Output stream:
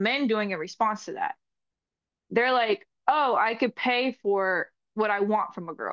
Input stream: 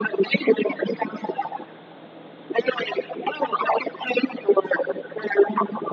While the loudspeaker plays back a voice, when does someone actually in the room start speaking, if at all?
none

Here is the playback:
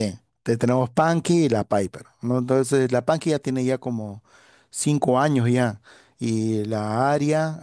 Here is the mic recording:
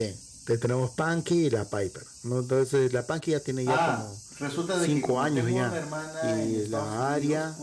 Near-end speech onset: 4 s

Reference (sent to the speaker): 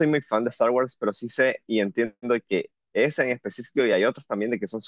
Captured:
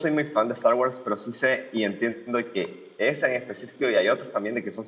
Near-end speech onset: none

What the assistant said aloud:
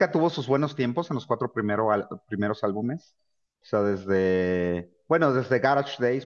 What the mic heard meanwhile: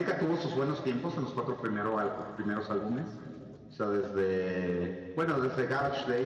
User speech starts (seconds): none

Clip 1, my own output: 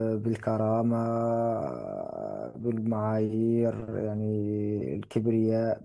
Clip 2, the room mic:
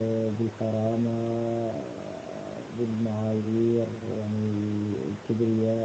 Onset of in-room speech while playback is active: none

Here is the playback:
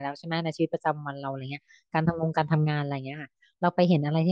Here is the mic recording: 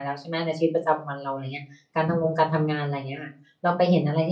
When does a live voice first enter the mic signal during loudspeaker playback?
none

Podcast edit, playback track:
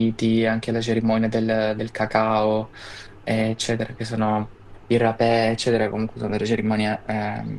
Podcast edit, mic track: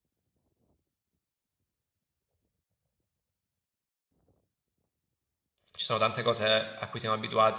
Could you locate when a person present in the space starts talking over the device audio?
6 s

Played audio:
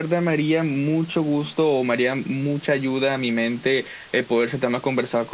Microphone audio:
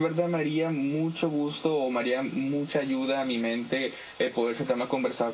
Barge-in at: none

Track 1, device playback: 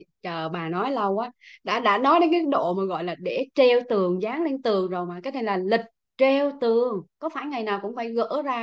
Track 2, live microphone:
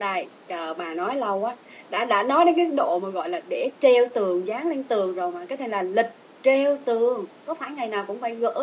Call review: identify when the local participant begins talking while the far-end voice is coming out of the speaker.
none

